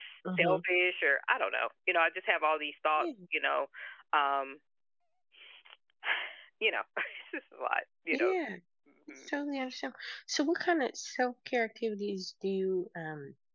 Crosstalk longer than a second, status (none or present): none